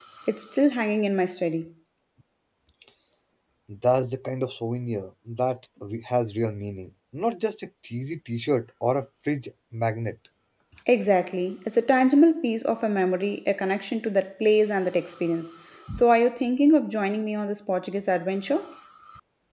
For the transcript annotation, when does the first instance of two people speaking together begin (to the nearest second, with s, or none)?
none